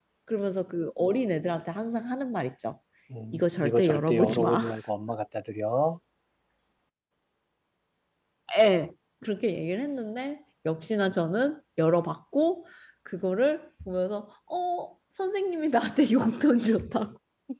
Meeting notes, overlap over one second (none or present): present